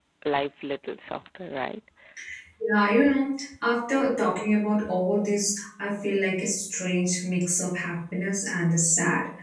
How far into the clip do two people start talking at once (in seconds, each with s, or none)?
none